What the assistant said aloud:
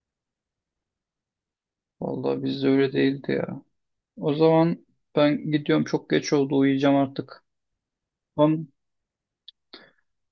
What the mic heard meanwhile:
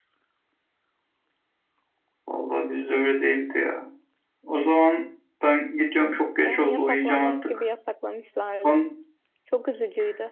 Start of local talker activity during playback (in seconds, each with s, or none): 6.4 s